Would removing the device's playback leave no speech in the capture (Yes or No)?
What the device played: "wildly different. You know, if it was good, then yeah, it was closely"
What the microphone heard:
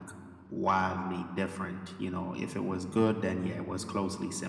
Yes